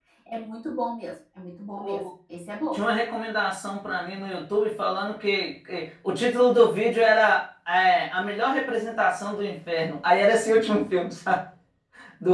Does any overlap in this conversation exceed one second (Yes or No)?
No